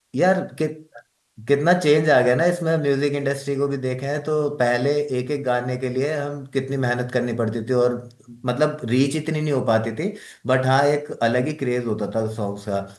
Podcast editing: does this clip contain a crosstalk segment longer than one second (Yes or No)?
No